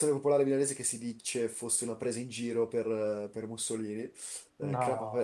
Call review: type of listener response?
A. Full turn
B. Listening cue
B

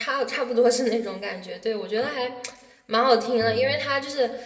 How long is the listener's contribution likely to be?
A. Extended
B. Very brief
B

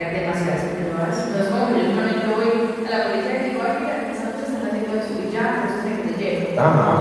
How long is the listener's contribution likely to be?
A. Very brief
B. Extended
B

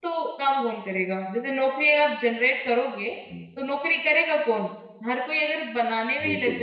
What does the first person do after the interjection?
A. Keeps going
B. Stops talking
A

